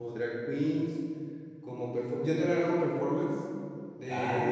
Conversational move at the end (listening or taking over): taking over